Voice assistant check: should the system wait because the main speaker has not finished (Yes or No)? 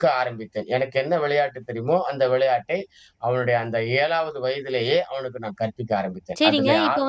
No